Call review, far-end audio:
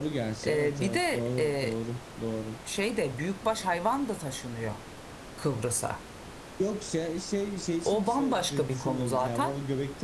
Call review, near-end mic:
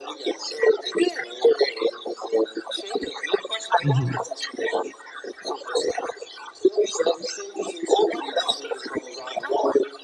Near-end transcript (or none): mhm,